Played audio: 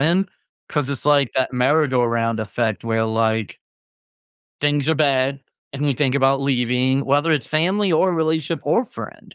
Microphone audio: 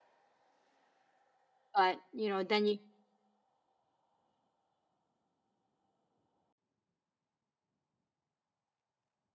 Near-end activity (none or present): present